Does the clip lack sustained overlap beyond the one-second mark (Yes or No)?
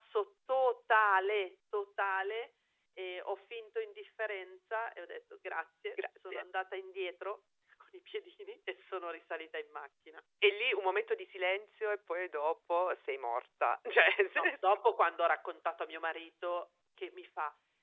Yes